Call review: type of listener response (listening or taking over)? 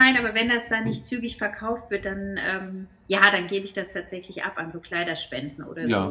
taking over